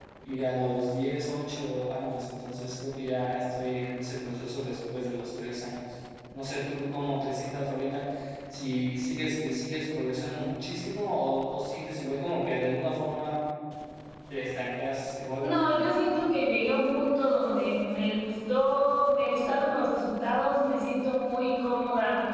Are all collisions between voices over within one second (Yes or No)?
Yes